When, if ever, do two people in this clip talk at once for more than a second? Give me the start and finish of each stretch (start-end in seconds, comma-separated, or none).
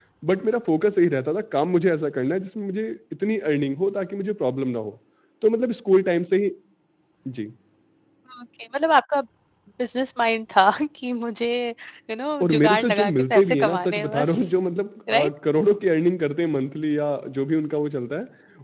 12.4-14.3